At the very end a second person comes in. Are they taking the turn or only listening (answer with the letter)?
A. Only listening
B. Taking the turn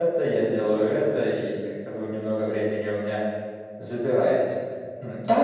B